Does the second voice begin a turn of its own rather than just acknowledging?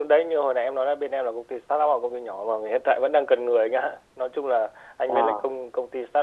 No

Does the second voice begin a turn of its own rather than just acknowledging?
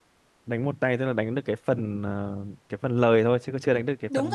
Yes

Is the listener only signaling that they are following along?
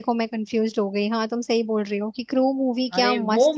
No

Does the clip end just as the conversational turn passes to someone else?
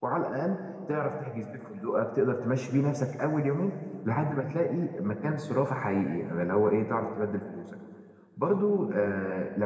No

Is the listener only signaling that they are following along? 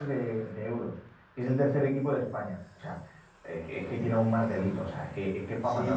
No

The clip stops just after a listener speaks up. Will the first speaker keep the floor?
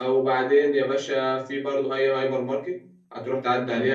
Yes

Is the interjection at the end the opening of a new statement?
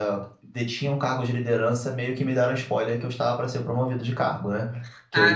No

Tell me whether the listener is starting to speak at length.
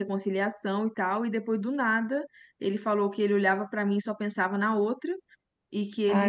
No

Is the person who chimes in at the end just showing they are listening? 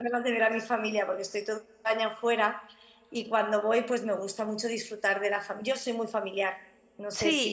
No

